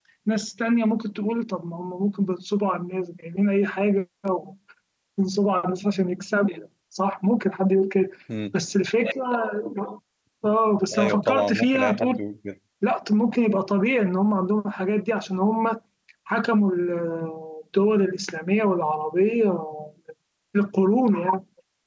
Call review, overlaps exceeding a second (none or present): present